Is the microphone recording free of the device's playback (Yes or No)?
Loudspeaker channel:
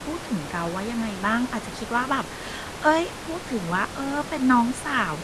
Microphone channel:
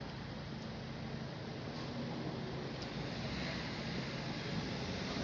Yes